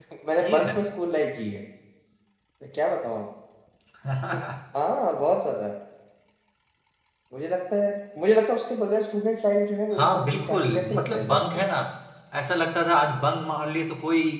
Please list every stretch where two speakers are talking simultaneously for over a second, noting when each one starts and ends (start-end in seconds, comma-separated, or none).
10.2-11.6